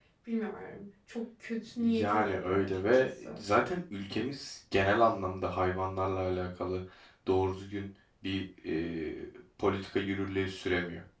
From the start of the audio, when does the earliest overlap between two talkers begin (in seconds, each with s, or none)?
1.8 s